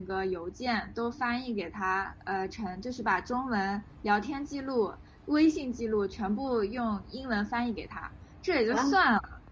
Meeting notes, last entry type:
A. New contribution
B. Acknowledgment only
B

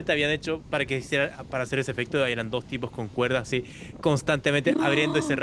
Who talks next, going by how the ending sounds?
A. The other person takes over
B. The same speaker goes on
B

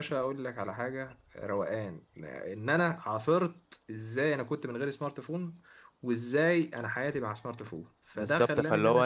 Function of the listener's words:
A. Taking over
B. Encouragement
A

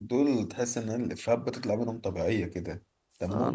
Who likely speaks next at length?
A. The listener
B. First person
A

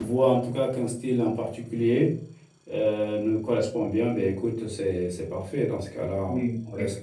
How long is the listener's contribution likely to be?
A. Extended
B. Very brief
A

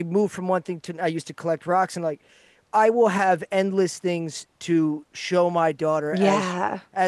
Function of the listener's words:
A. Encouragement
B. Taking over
A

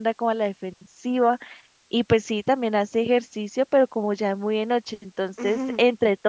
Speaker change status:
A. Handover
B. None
B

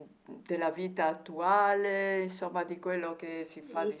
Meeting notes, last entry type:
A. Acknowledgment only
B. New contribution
B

